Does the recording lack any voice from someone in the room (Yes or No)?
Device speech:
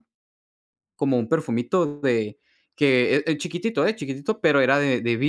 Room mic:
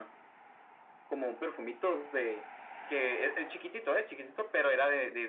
Yes